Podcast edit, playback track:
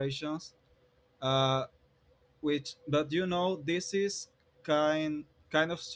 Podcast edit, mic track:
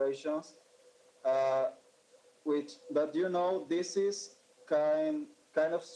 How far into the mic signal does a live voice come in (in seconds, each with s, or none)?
none